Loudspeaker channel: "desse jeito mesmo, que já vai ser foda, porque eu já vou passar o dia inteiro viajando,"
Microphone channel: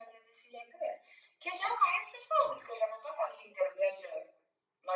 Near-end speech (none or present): none